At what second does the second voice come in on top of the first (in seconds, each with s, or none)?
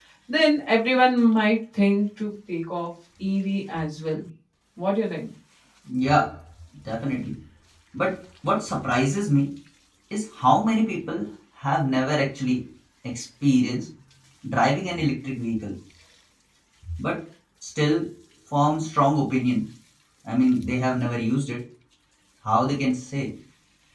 none